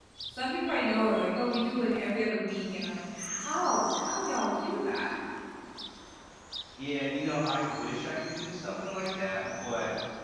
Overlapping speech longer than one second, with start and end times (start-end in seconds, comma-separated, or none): none